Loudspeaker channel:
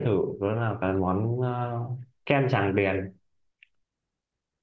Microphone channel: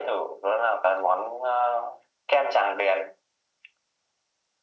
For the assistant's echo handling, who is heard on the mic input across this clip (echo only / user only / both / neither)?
echo only